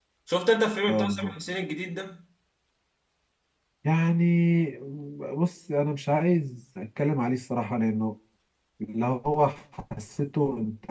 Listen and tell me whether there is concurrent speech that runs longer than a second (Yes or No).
No